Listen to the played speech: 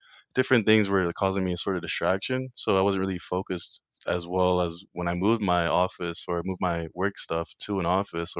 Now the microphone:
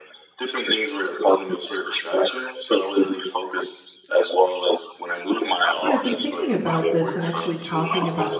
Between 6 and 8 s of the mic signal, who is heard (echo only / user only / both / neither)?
both